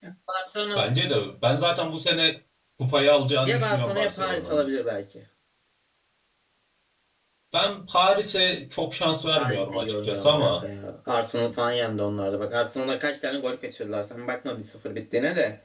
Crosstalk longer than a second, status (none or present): present